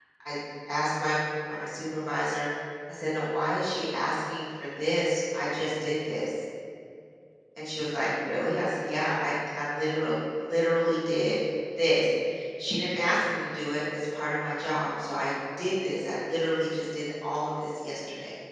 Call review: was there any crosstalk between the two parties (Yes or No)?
No